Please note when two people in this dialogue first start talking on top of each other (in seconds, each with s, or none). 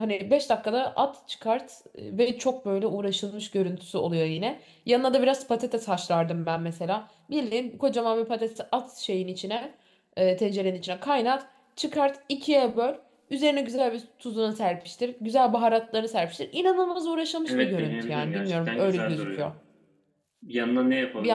17.5 s